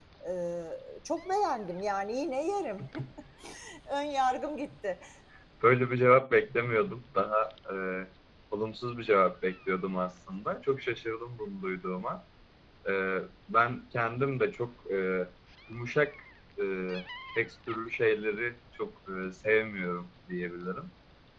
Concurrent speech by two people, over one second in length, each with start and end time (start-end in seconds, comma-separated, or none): none